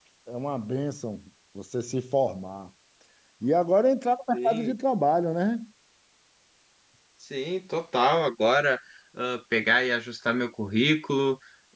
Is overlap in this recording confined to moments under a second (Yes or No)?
Yes